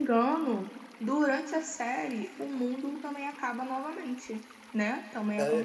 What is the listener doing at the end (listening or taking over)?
taking over